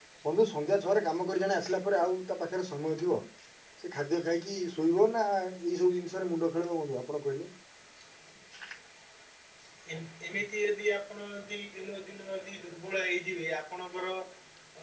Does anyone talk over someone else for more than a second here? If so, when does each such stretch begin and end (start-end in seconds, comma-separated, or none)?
none